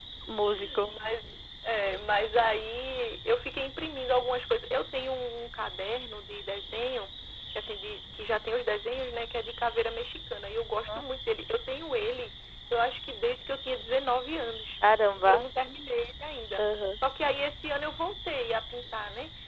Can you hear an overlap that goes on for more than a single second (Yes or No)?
No